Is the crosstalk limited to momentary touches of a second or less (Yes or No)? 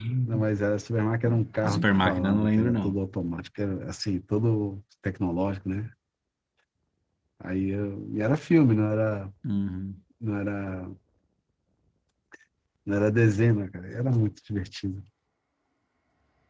No